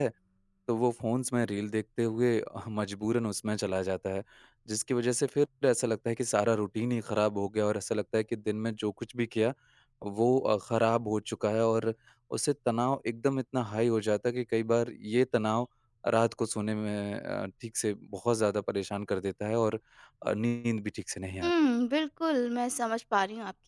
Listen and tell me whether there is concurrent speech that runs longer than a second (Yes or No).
No